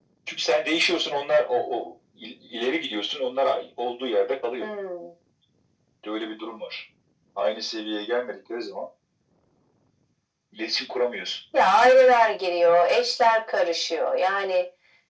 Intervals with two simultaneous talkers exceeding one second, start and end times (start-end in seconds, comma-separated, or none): none